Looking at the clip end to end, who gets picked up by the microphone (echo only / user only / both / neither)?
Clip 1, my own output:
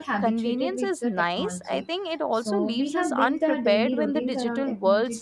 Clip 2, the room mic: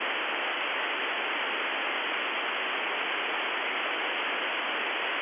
neither